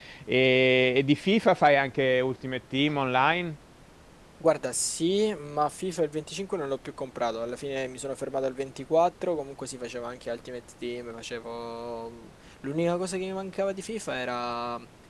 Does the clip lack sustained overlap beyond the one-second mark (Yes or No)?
Yes